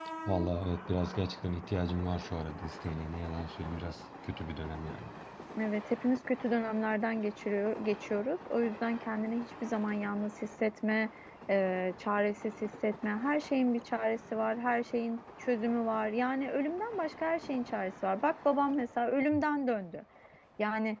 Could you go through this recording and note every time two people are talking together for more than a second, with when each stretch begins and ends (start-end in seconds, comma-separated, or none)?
none